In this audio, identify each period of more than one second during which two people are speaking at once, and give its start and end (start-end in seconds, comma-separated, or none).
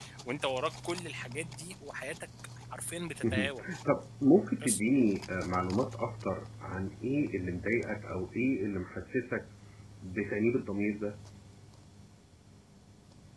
none